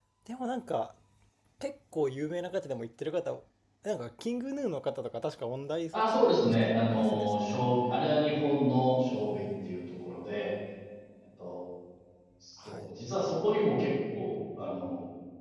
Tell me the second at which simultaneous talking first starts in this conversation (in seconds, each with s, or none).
5.9 s